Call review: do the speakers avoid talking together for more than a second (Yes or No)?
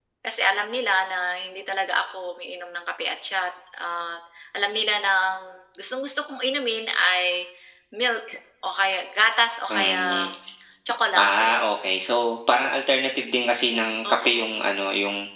Yes